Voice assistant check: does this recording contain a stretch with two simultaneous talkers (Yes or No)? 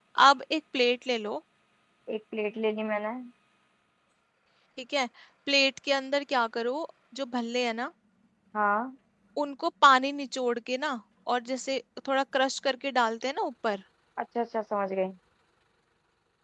No